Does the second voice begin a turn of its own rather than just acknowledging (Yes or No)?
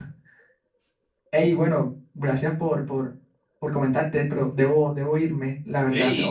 Yes